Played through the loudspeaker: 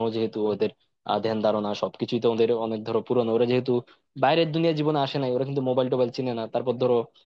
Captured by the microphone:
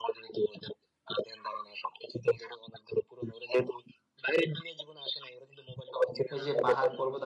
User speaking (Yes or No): Yes